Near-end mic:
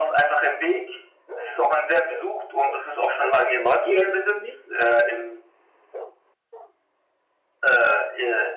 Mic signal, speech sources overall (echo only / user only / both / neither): both